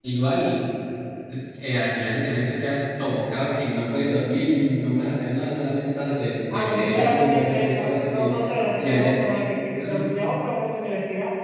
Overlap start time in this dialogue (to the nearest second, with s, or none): 7 s